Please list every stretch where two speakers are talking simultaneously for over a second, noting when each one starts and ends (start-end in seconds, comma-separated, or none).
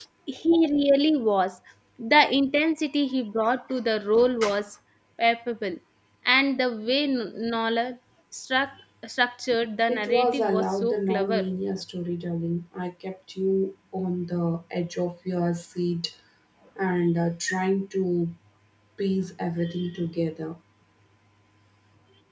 9.9-11.5